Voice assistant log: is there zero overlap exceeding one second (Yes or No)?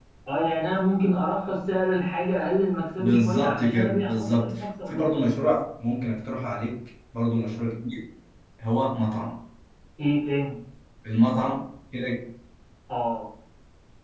No